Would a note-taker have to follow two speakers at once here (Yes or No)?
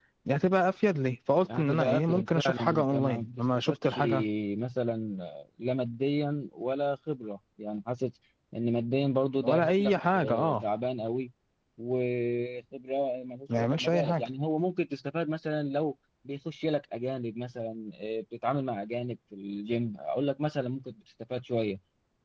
Yes